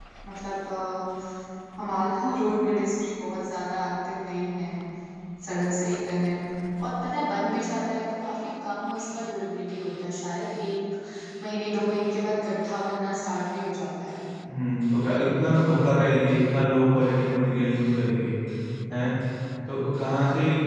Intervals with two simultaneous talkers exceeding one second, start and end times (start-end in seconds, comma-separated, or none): none